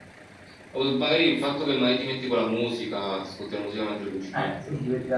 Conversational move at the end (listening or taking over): taking over